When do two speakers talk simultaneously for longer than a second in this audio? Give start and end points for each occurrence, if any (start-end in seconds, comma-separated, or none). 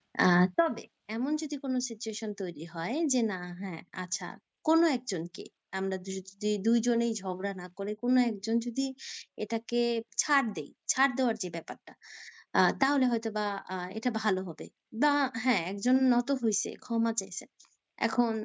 none